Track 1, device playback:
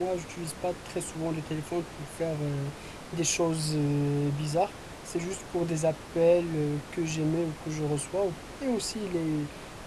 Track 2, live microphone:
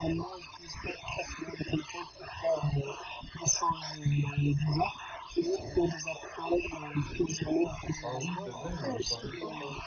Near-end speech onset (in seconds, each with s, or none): 8.0 s